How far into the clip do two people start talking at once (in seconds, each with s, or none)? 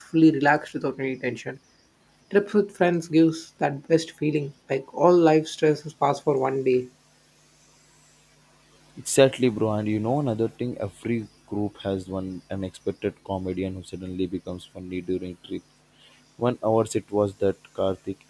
none